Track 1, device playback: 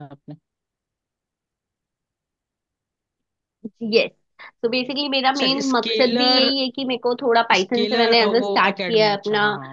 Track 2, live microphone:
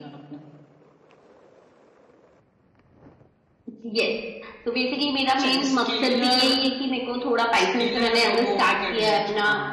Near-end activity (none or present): none